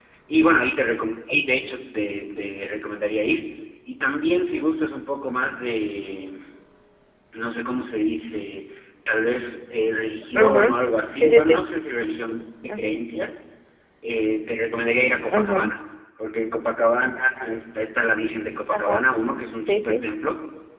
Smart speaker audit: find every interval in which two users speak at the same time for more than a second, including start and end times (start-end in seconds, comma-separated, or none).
none